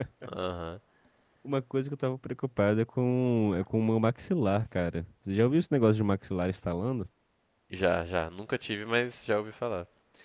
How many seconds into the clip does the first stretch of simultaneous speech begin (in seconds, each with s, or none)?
none